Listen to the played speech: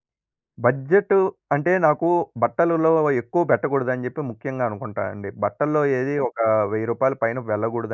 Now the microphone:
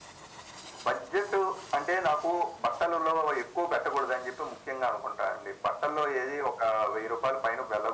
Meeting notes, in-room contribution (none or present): none